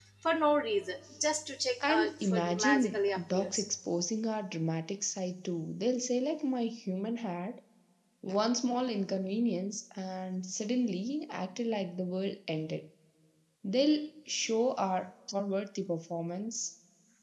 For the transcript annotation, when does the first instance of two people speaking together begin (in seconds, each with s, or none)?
1.8 s